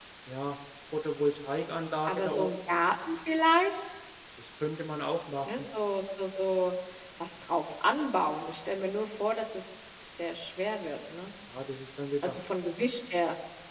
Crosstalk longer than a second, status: none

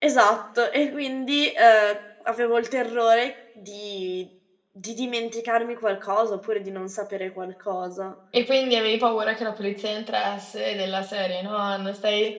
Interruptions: none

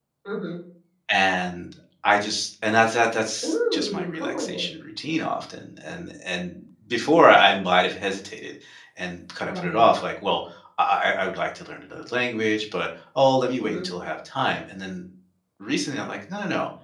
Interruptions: present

